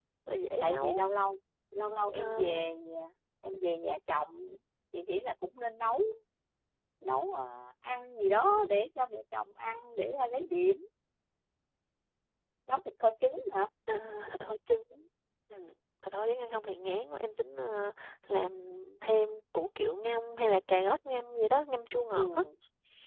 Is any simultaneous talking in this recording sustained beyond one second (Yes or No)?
No